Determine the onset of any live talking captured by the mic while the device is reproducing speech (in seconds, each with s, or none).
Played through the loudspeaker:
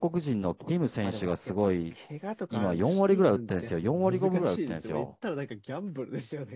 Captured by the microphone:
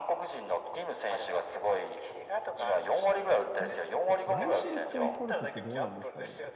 3.5 s